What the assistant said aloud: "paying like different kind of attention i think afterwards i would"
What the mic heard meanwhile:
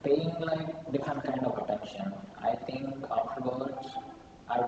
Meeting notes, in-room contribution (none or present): none